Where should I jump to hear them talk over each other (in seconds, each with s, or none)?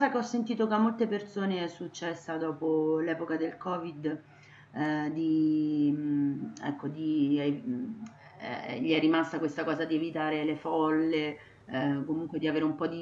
none